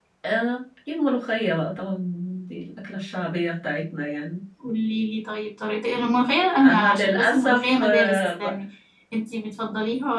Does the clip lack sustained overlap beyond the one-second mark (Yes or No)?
No